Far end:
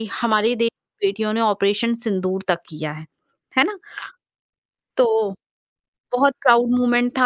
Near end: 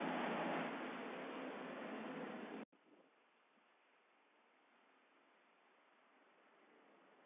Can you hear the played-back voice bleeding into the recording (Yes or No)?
No